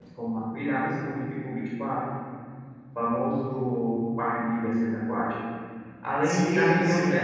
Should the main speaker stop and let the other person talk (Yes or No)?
No